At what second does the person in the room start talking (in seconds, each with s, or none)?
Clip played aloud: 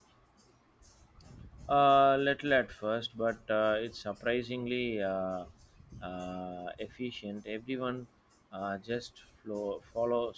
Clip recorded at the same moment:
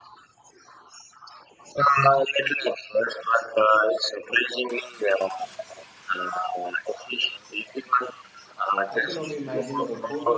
8.9 s